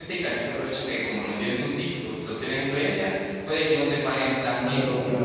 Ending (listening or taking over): listening